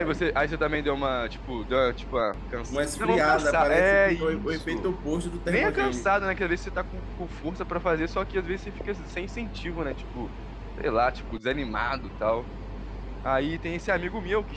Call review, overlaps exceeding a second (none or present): present